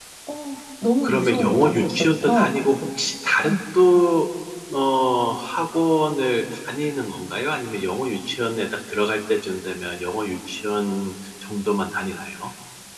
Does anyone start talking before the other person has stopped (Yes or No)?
Yes